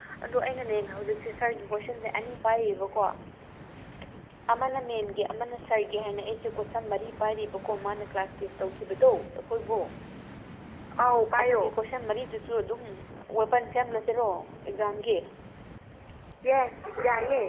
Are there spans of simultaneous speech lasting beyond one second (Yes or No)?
No